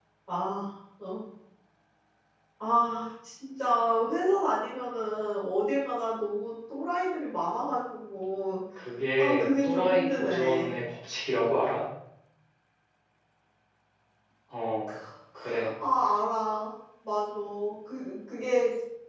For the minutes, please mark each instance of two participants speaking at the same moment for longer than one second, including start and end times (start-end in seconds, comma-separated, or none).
9.2-10.7